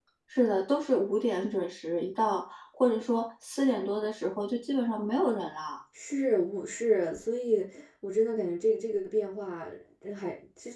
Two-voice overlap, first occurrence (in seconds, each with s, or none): none